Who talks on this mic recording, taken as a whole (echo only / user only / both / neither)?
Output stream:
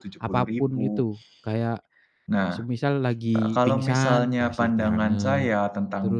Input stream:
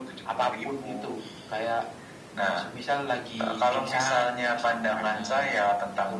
echo only